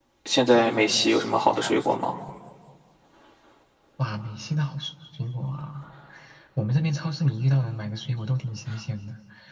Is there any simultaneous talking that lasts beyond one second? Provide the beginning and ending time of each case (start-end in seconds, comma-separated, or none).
none